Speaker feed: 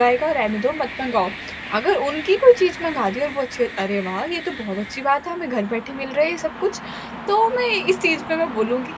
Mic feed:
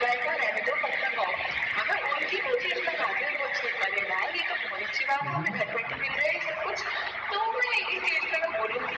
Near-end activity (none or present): present